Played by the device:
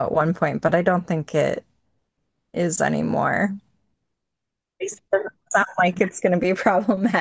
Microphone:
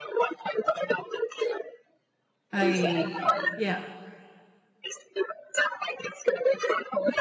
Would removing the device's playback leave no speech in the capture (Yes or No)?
No